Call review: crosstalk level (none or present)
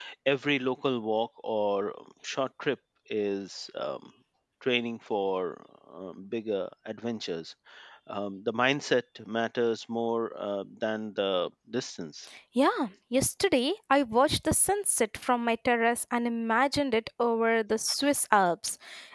none